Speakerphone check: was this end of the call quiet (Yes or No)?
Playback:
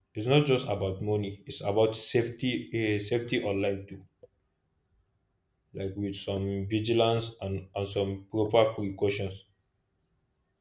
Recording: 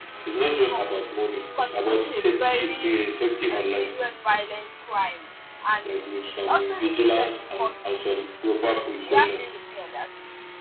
No